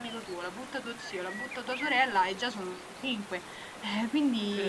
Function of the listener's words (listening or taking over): taking over